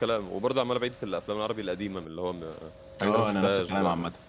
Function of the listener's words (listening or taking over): taking over